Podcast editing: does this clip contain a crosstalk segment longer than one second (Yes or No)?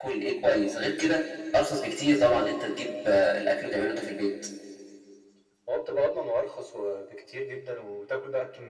No